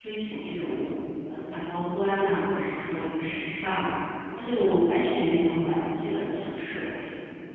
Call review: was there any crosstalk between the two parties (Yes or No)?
No